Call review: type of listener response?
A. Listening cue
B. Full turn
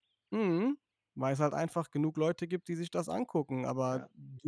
A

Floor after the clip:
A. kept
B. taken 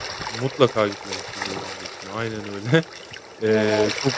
A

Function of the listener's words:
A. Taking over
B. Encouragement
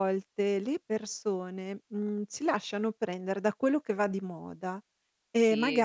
B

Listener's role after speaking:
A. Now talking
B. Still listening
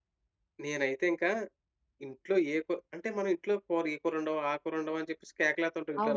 A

